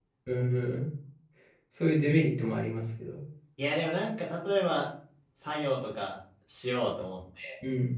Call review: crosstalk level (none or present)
none